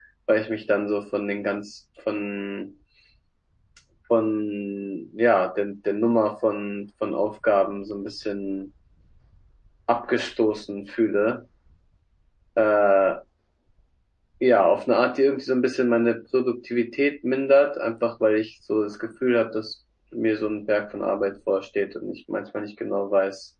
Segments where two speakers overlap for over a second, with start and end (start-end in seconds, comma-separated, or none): none